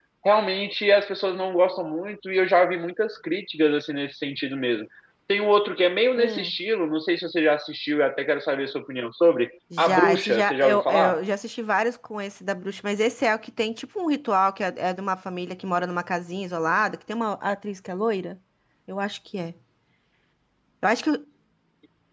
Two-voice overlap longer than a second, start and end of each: 9.8-11.2

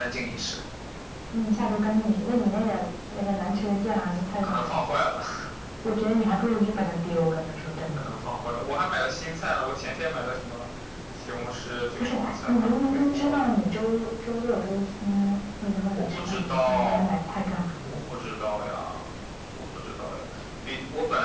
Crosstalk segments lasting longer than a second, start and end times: 12.0-13.4, 15.9-17.2

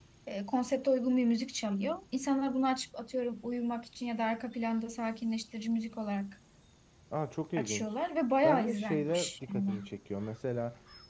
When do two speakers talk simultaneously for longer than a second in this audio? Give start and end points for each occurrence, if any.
8.4-9.9

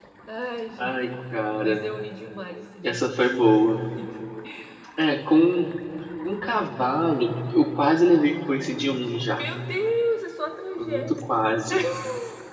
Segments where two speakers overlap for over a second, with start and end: none

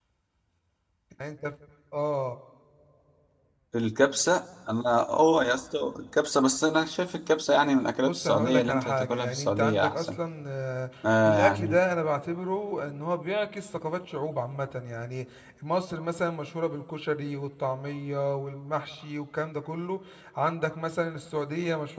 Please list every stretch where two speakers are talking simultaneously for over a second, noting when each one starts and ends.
8.0-10.2

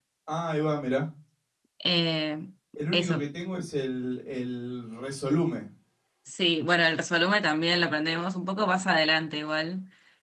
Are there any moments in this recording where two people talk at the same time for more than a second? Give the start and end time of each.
none

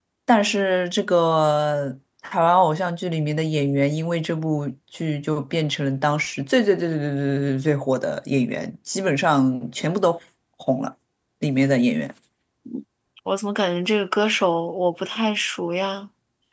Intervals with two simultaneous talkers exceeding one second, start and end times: none

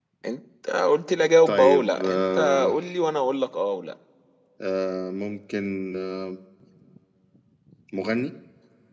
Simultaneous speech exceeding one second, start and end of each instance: 1.5-2.7

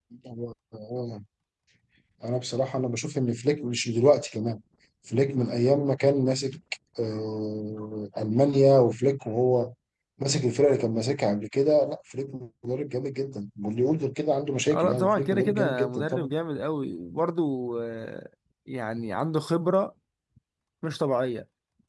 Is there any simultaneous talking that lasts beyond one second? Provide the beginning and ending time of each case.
14.7-16.3

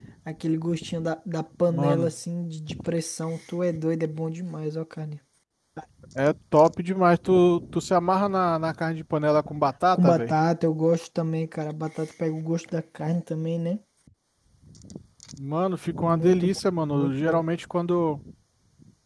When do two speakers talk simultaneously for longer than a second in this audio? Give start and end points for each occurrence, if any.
16.0-17.4

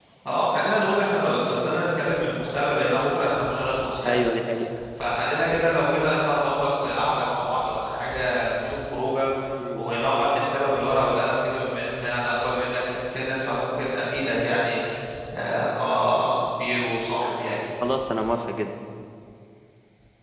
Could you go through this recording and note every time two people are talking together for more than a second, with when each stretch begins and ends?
none

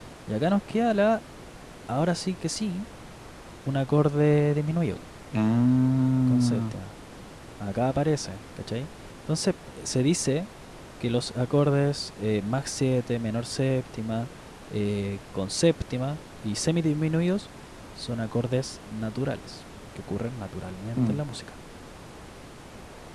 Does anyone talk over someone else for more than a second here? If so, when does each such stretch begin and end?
none

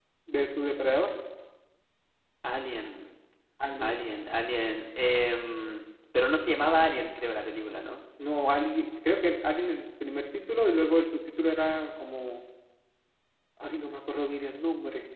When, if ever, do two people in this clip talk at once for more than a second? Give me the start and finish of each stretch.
none

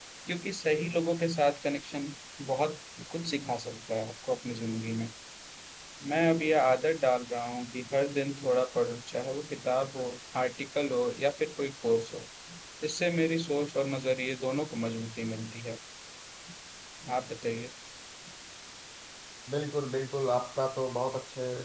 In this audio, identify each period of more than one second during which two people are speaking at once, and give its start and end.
none

